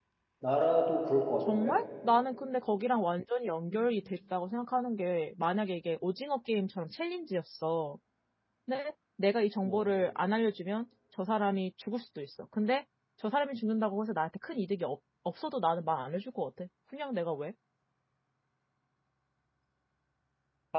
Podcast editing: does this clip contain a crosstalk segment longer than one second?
No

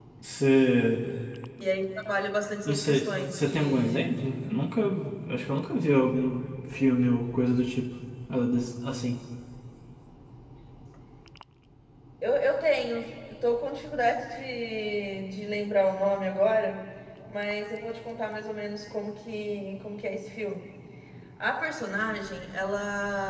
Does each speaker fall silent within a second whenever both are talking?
No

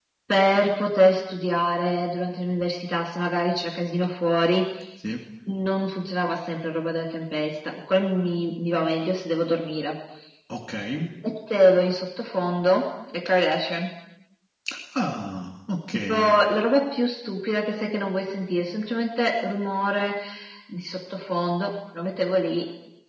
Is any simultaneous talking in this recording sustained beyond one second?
No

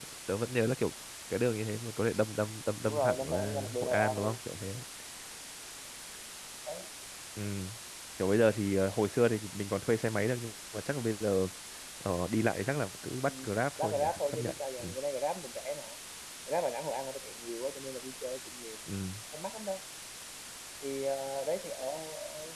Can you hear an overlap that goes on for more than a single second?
Yes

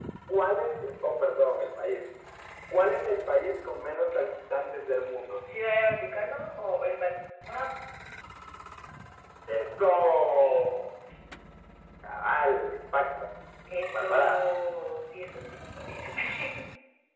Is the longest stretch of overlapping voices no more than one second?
Yes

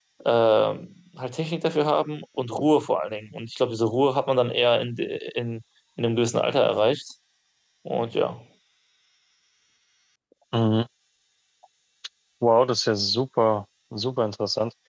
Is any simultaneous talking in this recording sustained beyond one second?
No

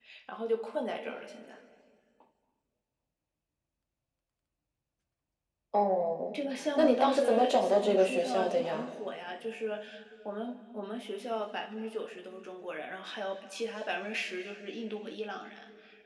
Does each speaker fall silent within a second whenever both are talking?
No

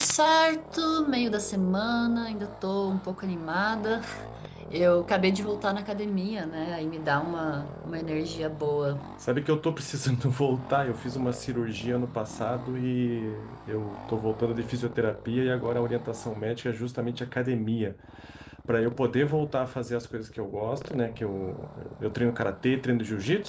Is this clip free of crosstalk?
Yes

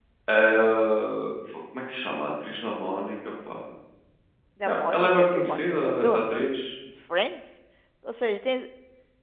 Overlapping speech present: Yes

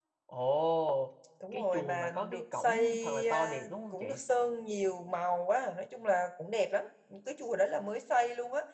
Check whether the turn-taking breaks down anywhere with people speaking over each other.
Yes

